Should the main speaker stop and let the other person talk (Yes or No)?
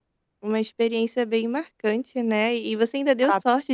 No